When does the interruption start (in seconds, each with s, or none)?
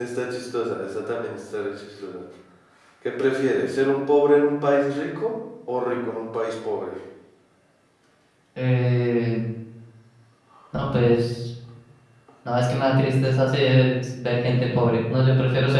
none